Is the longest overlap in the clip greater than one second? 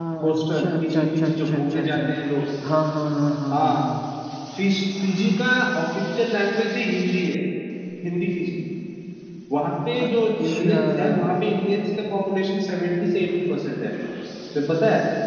Yes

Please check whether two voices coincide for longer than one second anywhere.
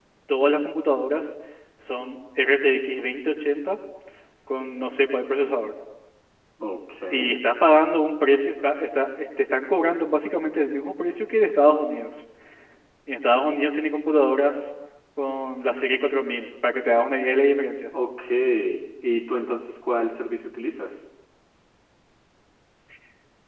No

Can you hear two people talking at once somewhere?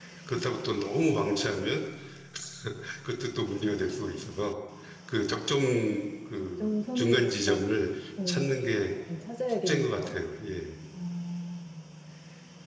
Yes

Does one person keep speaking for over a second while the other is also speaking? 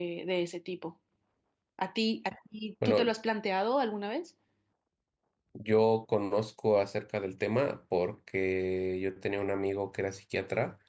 No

